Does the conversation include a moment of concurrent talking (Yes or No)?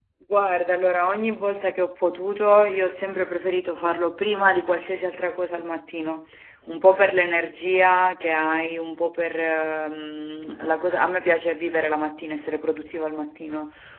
No